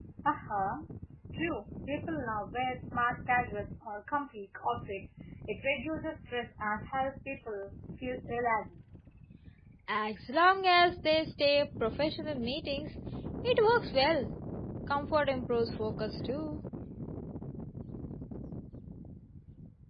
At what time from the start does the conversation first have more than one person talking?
none

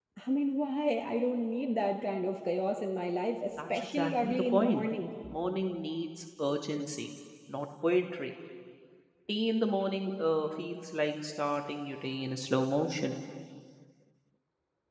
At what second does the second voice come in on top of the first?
4 s

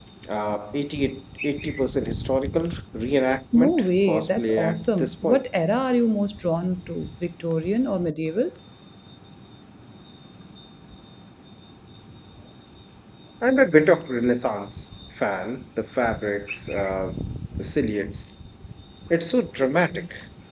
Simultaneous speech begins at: 4 s

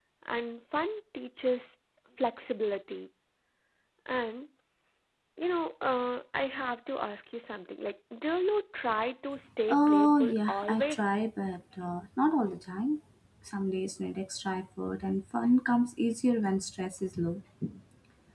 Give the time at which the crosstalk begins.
10 s

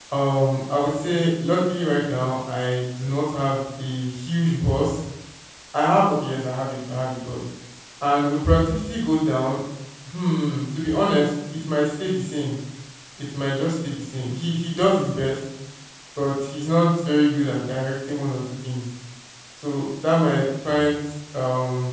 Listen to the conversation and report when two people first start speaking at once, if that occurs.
none

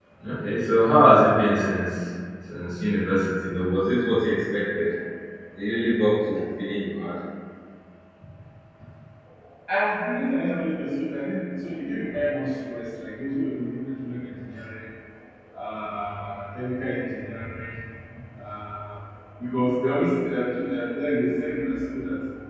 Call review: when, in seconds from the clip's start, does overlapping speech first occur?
none

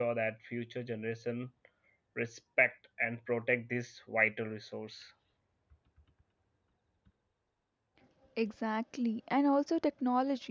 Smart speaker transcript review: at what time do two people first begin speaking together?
none

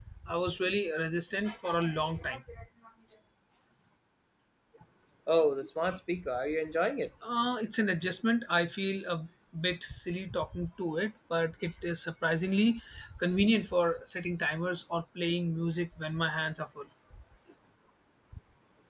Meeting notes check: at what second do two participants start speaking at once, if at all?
none

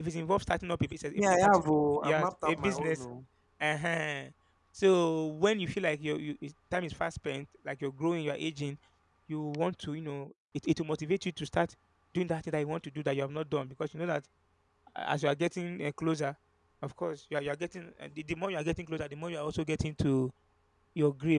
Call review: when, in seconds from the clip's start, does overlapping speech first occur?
1 s

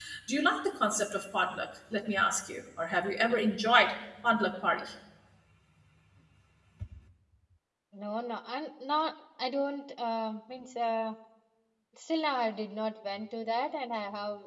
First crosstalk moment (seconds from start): none

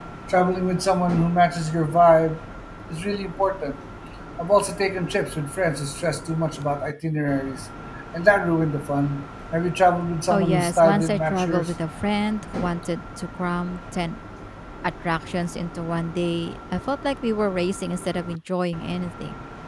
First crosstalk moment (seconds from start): 10 s

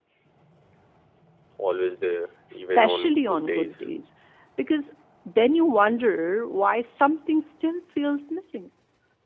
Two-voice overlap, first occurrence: 2 s

